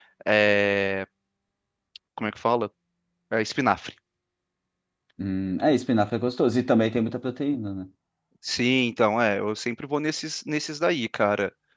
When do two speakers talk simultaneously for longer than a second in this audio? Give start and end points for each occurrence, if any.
none

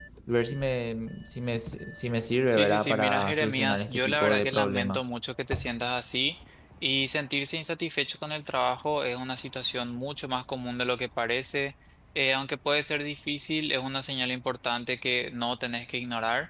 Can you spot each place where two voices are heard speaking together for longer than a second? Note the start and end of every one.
2.5-5.0

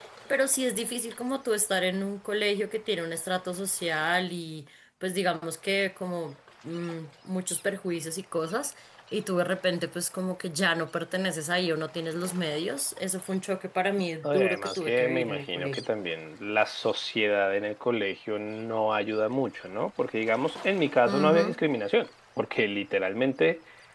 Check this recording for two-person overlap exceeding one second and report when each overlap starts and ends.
14.2-15.8

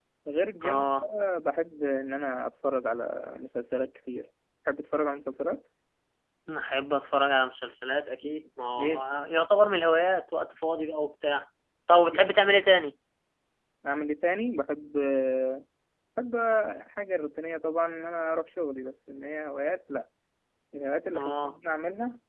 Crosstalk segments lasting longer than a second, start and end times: none

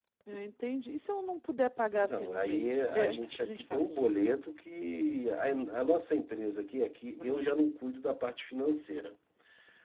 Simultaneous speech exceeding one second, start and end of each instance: 2.0-4.0

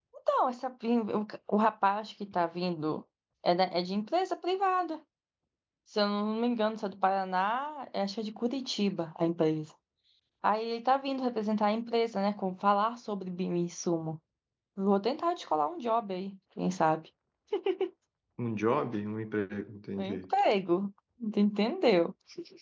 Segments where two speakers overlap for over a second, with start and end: none

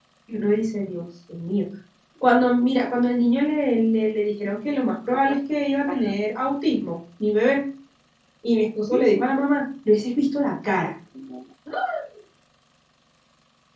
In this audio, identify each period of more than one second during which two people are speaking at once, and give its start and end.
none

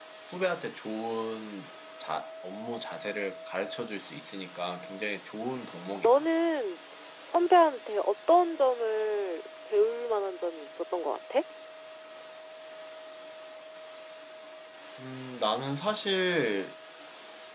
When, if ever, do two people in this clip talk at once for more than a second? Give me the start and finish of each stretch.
none

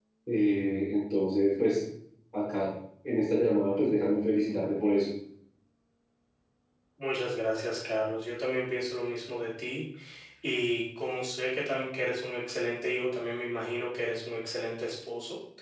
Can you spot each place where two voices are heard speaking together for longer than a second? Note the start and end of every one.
none

